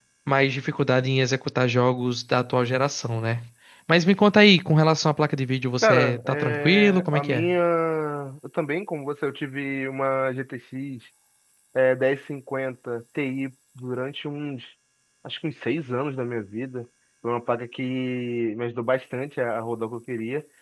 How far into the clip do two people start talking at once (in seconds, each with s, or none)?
5.8 s